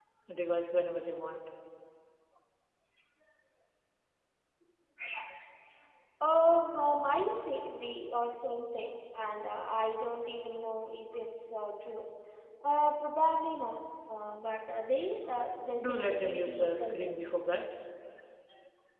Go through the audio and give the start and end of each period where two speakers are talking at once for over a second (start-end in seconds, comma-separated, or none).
15.8-17.4